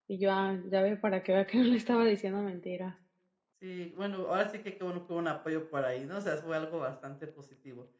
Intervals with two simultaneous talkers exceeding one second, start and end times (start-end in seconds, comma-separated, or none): none